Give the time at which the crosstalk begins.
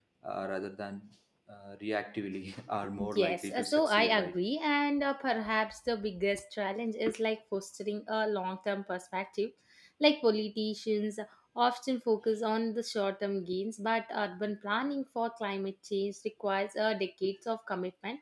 3.0 s

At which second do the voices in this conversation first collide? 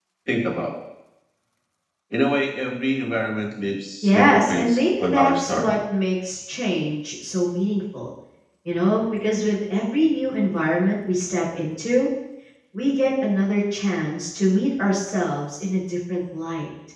4.0 s

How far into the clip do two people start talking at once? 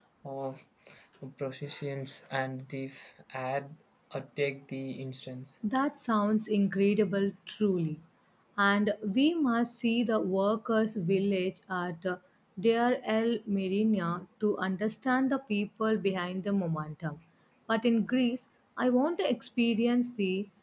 none

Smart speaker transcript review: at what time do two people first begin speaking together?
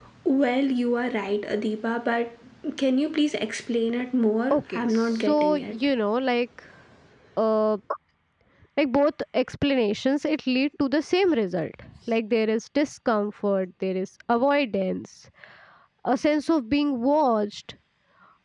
4.5 s

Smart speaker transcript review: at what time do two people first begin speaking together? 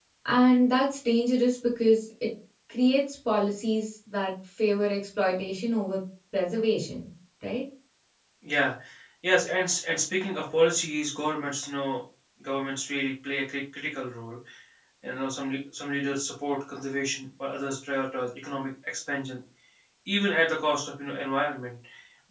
none

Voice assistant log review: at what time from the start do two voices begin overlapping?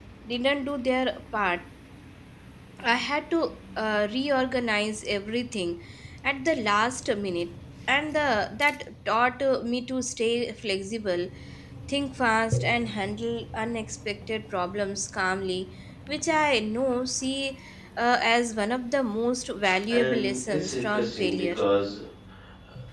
19.9 s

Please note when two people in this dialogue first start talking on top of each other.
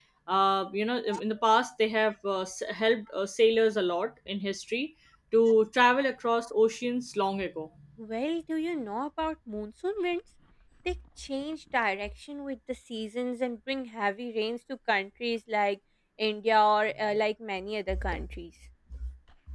none

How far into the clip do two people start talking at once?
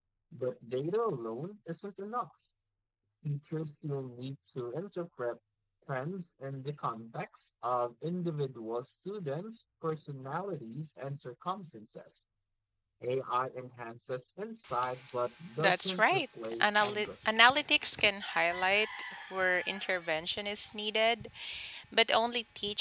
15.6 s

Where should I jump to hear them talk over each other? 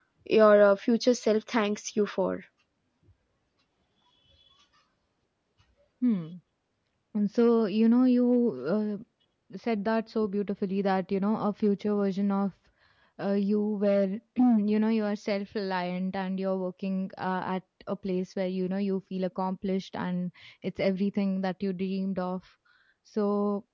none

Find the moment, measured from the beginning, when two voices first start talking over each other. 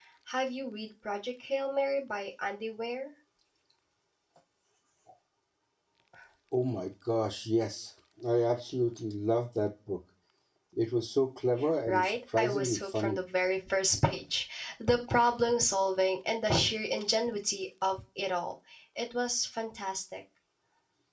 11.9 s

